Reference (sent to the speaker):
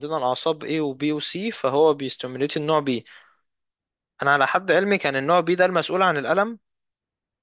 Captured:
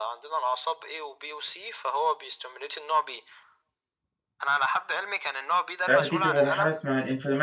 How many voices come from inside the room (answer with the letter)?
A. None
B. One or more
B